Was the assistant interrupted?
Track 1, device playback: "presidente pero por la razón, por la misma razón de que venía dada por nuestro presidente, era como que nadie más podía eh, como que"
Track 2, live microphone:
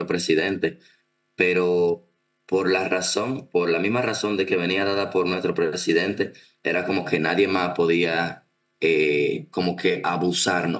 No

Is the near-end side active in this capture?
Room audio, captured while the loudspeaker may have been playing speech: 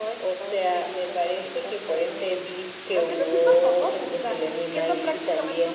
No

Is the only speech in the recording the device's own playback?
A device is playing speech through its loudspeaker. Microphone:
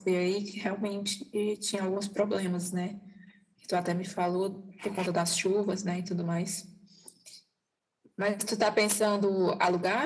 Yes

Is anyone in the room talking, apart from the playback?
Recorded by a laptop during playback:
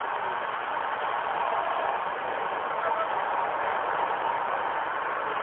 No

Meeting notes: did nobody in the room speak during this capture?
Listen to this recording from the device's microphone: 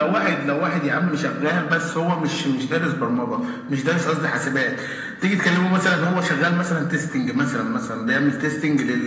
Yes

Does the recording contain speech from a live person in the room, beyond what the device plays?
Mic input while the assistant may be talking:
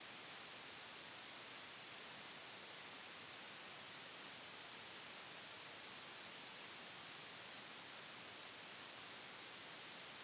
No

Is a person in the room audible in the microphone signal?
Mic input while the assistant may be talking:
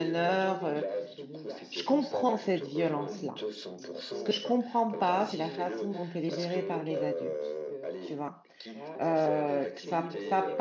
Yes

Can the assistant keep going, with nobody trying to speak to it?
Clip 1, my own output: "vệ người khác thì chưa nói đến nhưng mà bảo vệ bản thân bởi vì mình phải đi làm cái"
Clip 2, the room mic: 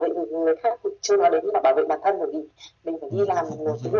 No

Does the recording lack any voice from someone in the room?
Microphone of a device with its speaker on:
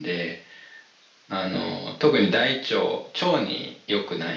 No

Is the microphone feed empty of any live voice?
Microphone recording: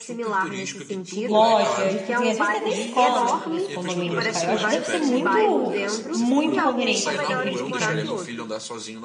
No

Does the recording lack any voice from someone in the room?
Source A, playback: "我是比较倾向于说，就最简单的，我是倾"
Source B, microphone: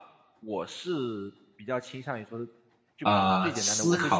No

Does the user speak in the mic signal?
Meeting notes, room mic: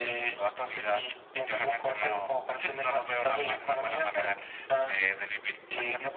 No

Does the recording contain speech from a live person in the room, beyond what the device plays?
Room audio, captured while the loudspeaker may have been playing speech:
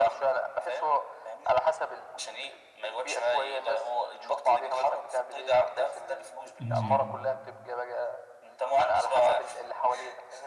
Yes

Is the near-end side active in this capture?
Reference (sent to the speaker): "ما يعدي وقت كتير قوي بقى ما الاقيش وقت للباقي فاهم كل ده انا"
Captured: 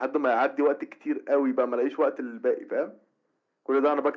No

